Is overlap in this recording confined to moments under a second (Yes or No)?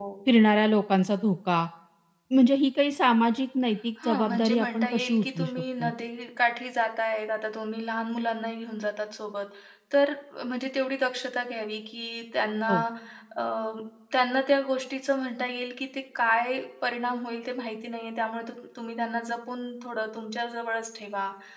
No